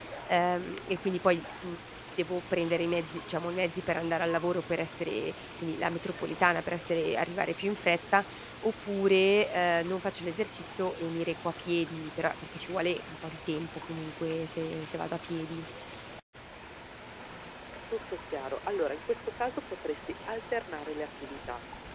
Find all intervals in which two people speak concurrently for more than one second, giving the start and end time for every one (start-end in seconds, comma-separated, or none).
none